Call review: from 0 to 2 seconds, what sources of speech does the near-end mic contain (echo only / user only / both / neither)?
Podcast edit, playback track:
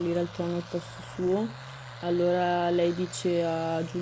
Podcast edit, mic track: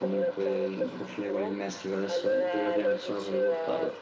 both